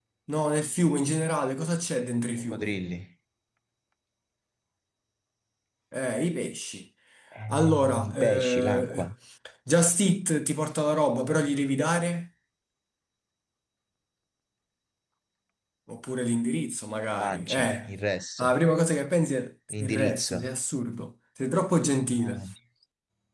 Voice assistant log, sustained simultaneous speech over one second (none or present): present